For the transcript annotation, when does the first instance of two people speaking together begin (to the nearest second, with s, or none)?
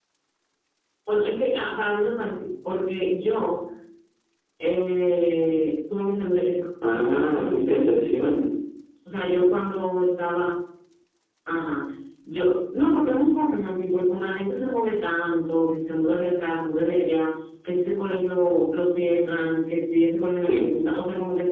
7 s